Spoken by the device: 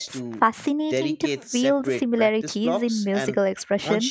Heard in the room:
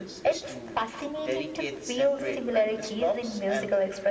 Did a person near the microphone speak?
No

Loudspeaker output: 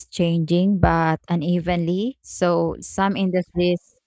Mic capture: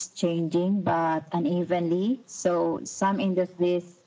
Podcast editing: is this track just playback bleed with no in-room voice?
Yes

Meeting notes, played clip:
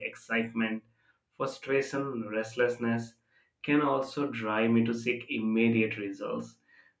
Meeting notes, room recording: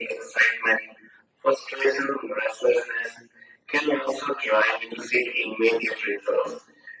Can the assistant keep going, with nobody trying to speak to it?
Yes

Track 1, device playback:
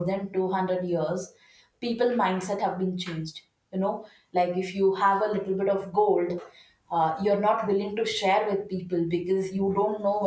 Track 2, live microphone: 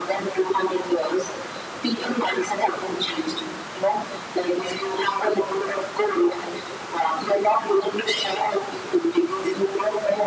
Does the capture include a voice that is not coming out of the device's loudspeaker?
No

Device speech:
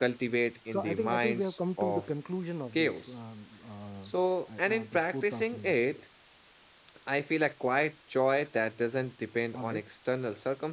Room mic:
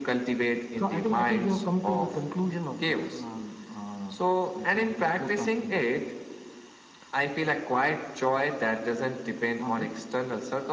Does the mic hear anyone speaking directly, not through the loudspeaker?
No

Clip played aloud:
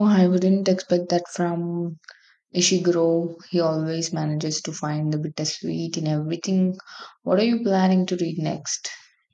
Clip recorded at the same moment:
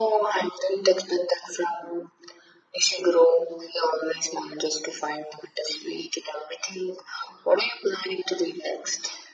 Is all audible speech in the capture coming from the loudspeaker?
Yes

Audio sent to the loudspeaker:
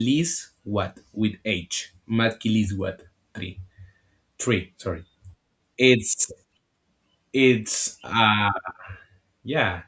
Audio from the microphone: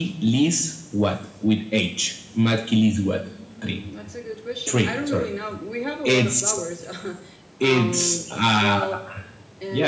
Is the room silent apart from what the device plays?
No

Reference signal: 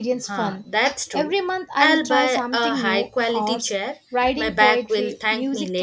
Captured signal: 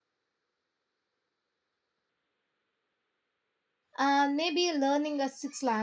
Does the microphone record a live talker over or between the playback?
Yes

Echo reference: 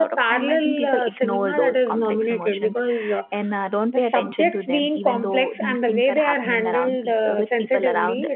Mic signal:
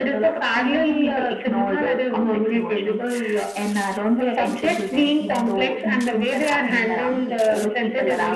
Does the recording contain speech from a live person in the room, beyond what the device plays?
No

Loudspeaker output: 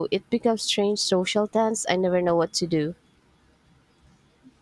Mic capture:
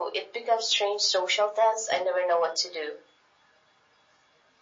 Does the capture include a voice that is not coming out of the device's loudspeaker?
No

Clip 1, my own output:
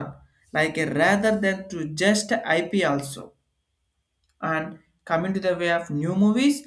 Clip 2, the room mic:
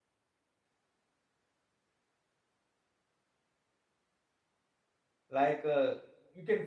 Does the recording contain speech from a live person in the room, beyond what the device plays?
Yes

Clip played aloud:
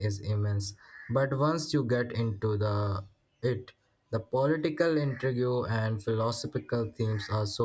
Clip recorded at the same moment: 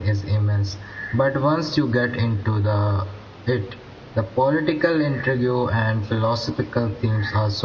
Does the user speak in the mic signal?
No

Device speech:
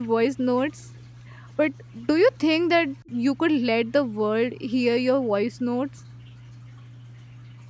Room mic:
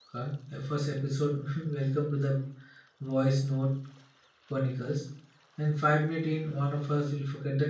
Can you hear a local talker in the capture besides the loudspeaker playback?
Yes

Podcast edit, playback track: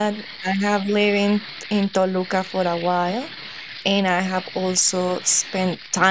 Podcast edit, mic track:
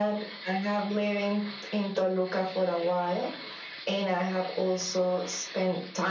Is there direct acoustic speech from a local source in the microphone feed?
No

